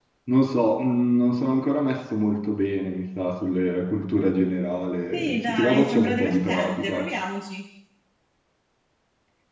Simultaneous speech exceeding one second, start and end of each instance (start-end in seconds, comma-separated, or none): 5.1-7.0